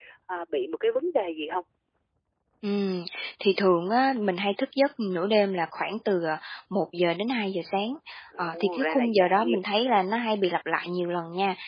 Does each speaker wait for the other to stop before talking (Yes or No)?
No